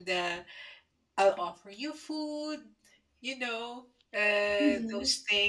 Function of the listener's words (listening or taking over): listening